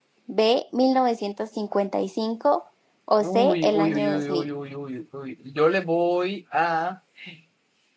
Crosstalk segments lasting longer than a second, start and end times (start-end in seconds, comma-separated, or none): 3.2-4.5